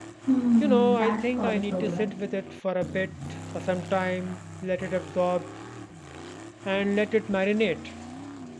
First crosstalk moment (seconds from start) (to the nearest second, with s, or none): 1 s